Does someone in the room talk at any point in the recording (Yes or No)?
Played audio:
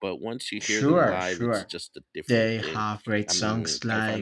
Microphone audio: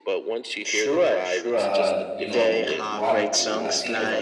Yes